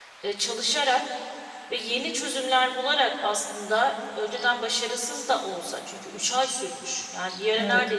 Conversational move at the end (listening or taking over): listening